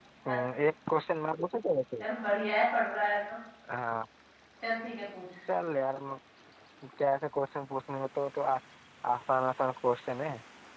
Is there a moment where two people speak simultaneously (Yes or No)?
No